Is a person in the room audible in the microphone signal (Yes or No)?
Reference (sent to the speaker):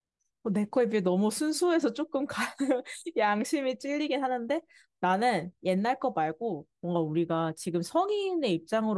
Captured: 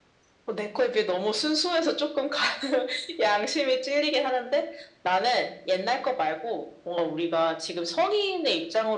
No